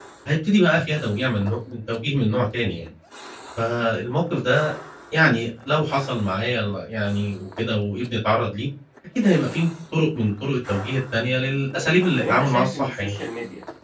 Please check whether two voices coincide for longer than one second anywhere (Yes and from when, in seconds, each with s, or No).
Yes, from 11.7 s